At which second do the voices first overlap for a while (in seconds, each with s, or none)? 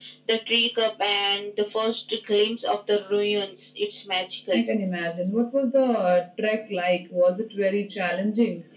none